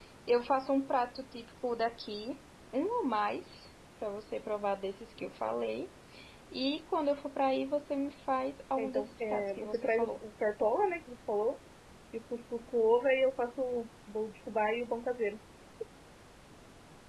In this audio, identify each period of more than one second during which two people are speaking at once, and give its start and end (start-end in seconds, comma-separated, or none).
8.8-10.1